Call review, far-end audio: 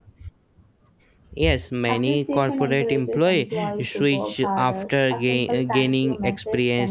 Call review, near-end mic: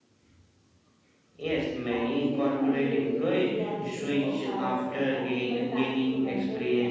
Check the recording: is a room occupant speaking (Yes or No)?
No